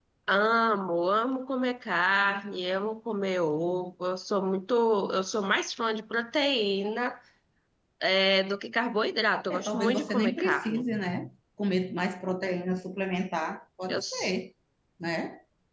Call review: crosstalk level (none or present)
present